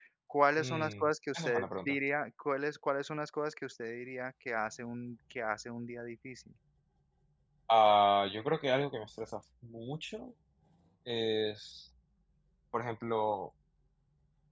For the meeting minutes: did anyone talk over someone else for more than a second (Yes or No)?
Yes